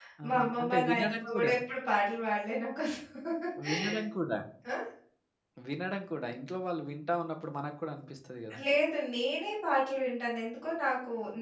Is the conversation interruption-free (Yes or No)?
No